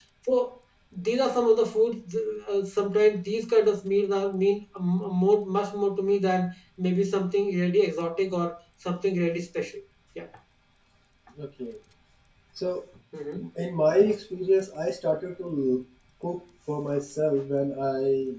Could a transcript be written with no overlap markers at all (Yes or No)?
Yes